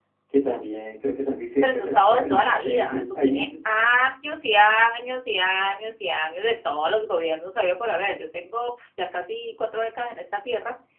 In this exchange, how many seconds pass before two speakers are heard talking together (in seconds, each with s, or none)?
1.6 s